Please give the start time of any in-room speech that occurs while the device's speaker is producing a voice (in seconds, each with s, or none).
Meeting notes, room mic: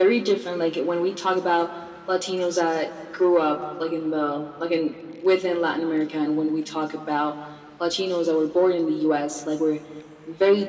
none